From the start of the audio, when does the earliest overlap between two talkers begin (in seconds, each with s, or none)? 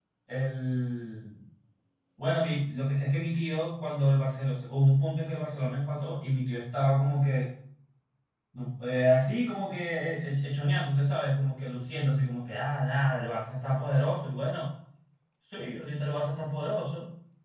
none